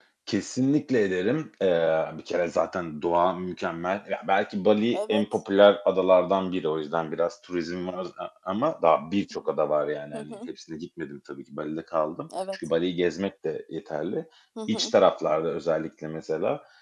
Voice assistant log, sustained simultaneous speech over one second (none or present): none